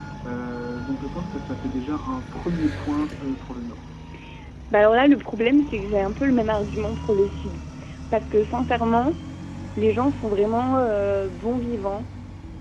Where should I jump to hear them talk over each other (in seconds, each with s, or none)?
none